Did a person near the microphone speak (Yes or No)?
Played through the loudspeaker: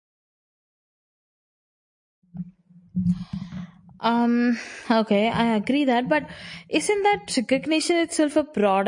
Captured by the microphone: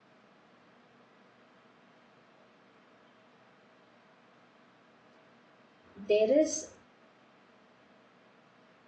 Yes